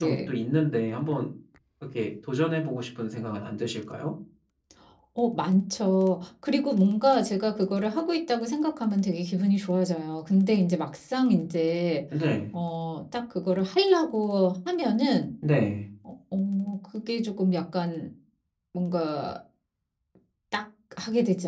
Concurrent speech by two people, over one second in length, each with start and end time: none

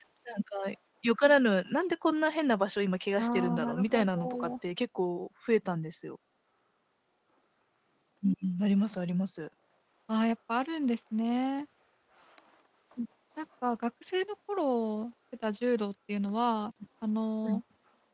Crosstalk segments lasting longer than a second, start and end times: 3.2-4.5

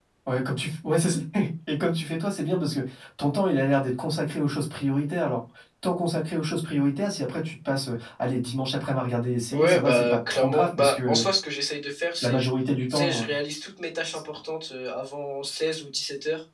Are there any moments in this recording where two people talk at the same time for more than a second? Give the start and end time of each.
9.5-11.2

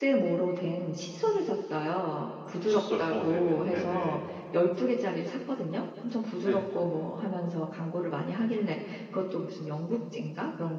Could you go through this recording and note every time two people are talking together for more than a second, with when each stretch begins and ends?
2.7-4.2

